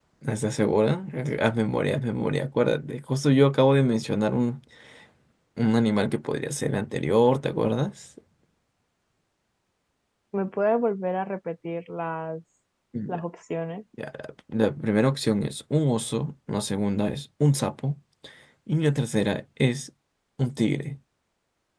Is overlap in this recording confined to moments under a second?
Yes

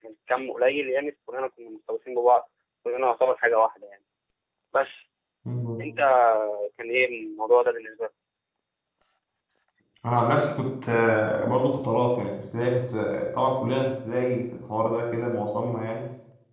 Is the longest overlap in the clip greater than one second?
No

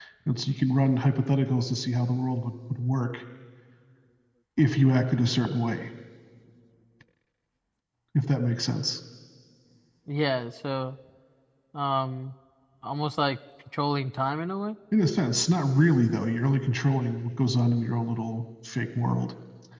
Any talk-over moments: No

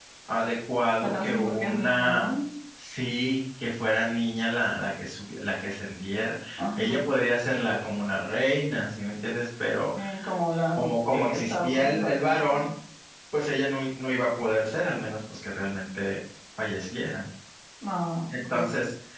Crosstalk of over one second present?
Yes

